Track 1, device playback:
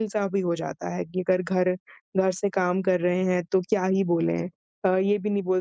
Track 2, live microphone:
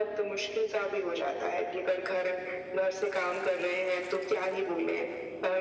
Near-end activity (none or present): none